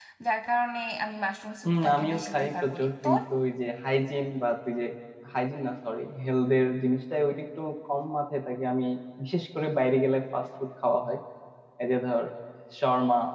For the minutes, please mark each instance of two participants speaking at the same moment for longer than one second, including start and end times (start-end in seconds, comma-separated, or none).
1.6-3.2